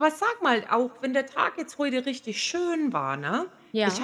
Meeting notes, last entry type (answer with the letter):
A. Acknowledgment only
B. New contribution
A